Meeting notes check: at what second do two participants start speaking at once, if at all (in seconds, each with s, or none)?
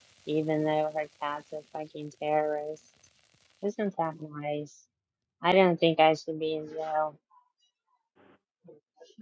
none